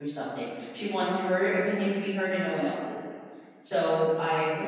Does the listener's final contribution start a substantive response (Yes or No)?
No